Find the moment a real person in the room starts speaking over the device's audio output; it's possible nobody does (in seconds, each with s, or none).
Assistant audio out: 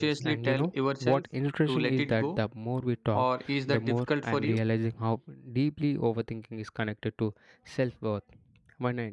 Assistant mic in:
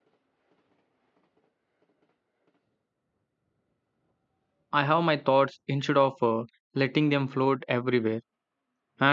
4.7 s